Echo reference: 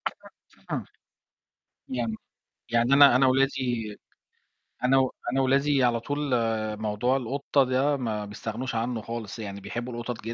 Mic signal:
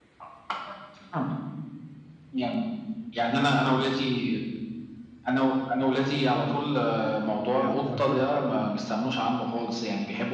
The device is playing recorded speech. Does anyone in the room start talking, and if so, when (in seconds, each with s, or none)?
7.5 s